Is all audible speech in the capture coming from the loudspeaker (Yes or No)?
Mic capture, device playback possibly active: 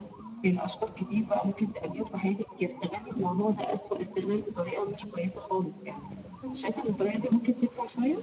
No